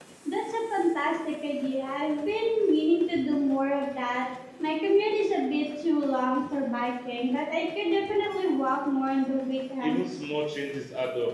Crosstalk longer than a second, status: none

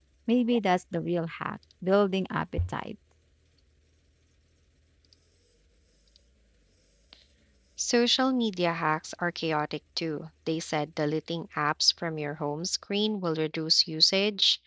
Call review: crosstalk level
none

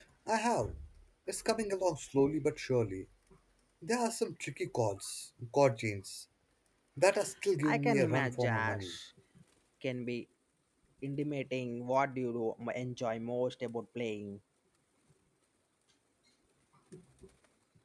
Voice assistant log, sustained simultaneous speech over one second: present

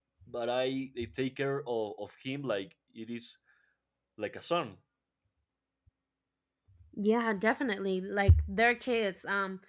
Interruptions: none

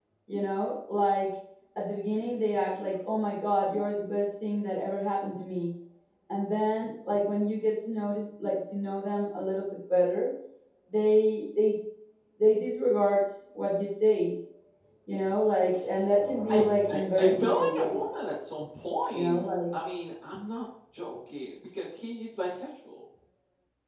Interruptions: present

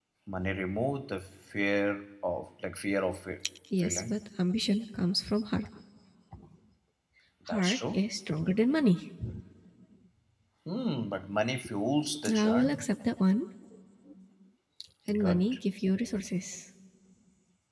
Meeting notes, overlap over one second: none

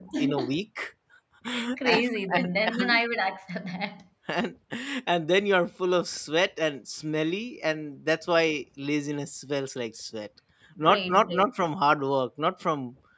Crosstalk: present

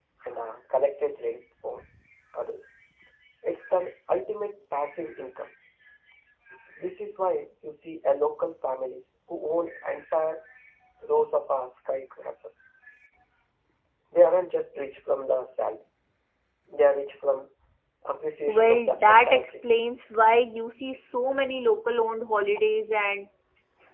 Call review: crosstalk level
present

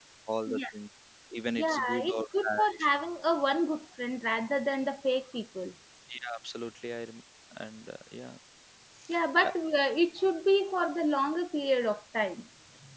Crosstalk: present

